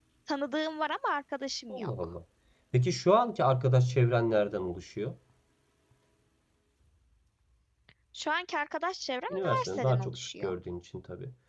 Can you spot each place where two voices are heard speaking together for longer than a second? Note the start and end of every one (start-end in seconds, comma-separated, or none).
9.3-10.5